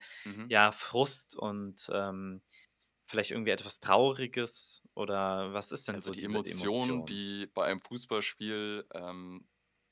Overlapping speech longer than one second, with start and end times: 5.9-7.2

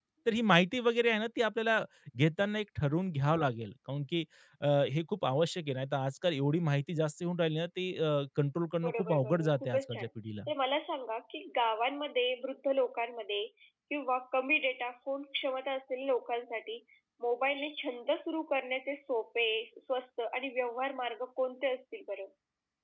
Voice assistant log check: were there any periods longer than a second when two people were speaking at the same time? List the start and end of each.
8.8-10.1

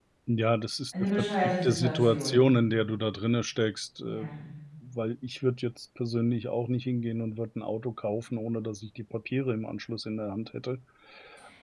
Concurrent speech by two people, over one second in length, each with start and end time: 1.2-2.4

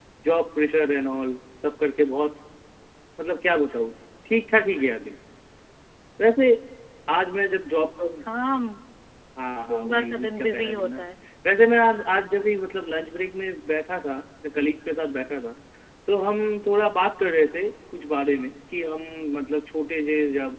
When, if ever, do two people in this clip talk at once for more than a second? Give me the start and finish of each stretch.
9.6-11.0

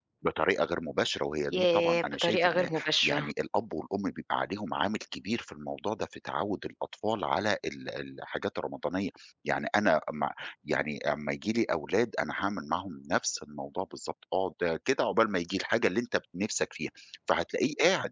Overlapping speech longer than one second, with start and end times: 1.5-3.3

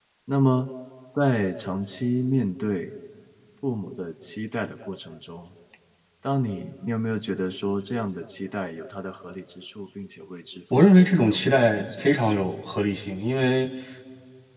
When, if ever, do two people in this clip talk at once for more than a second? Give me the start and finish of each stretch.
10.7-12.4

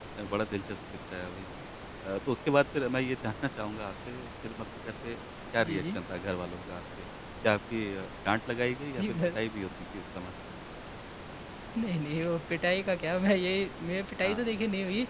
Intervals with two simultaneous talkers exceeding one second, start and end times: none

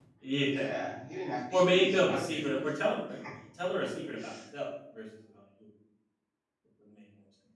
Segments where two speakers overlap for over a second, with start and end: 1.5-2.7

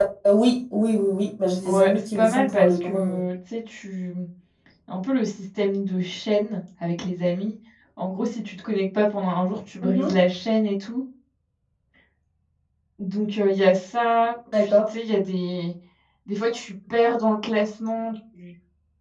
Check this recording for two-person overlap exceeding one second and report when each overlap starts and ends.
1.6-3.2

